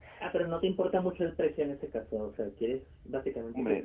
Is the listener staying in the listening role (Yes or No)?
No